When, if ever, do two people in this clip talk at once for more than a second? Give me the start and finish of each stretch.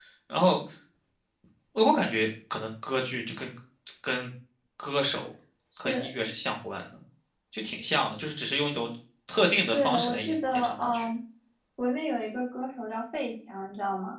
9.7-11.1

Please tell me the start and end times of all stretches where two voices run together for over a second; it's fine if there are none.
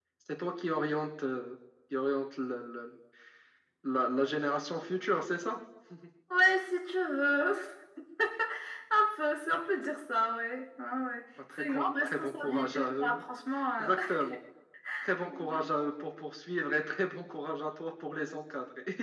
11.6-13.1

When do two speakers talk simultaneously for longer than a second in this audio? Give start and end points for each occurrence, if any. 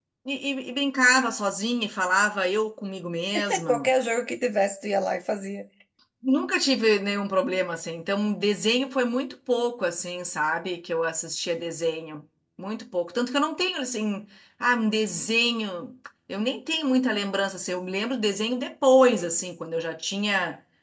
none

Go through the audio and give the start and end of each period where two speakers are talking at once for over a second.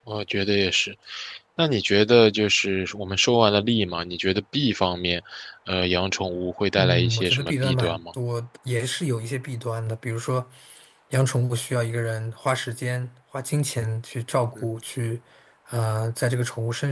6.8-8.0

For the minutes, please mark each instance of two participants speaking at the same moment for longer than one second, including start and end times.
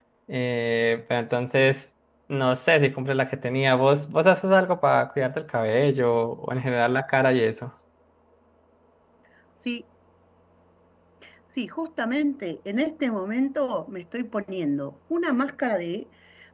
none

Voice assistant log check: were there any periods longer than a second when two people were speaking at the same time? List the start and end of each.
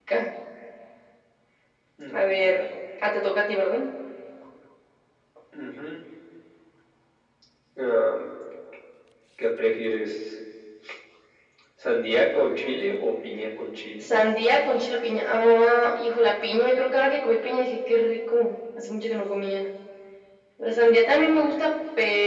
none

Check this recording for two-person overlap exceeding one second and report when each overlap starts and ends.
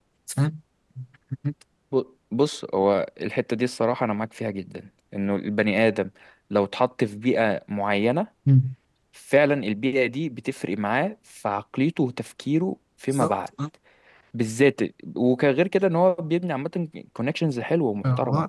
none

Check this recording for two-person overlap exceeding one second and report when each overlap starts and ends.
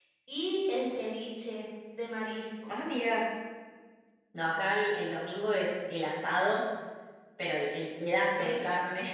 none

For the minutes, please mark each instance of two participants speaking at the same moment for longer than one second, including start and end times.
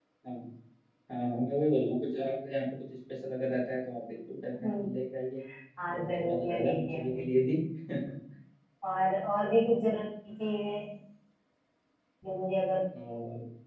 5.9-7.3

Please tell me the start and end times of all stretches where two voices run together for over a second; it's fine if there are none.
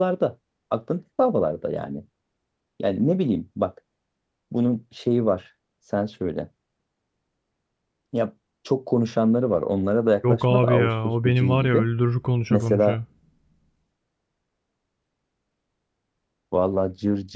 10.3-11.8

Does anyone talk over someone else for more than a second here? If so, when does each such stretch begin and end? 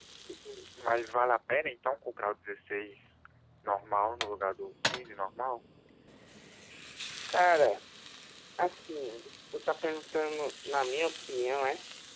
none

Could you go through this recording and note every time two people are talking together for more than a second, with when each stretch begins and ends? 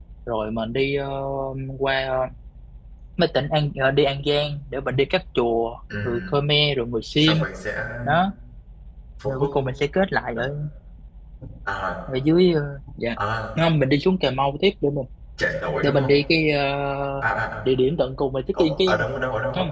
none

